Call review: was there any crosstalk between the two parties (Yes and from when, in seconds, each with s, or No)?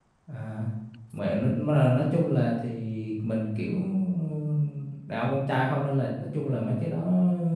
No